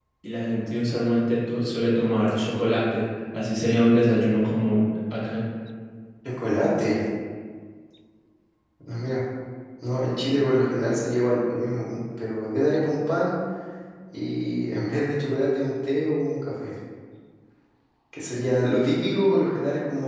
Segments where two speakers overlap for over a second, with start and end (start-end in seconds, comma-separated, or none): none